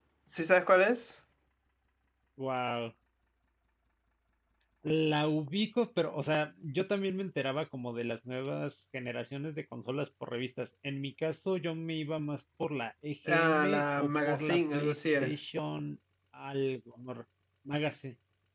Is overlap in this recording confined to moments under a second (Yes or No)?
No